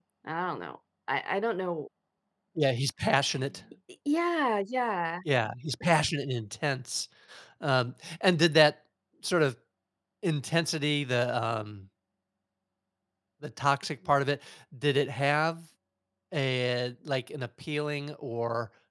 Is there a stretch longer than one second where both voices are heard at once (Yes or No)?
No